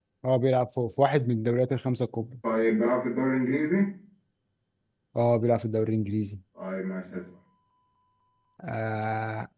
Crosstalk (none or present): none